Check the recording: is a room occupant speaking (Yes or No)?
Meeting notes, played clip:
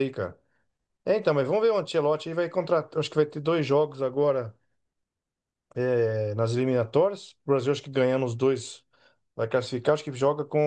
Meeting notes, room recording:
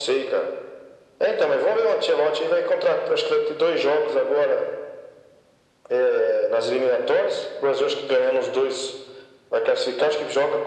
No